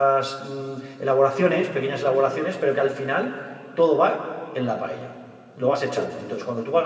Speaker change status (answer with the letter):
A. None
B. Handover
A